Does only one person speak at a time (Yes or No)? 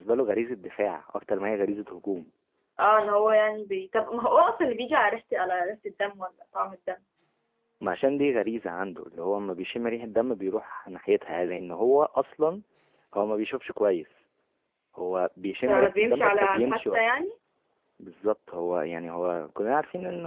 No